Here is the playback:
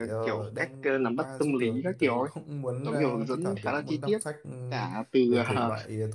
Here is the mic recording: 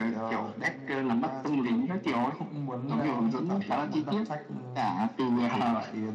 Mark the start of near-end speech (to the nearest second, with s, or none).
none